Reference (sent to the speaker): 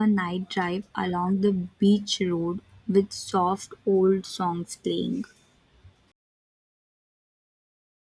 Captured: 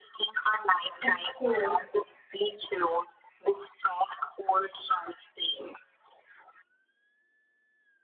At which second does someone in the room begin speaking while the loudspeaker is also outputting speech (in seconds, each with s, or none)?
1.0 s